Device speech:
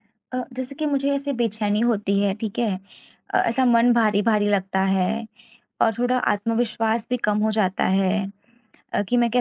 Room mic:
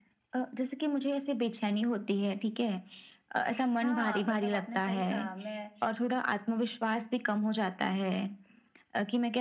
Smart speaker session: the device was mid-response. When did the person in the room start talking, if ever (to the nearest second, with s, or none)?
4 s